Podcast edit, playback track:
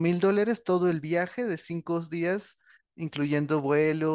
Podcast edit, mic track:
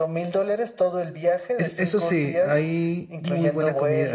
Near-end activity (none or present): present